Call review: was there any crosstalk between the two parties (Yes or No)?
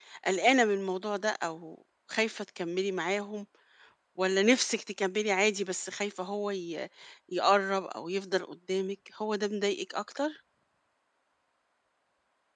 No